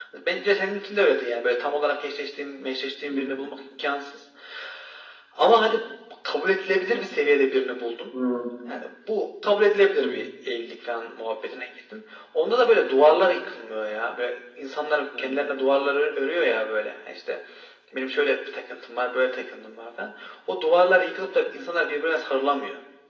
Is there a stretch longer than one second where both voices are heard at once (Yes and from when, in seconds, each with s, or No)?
No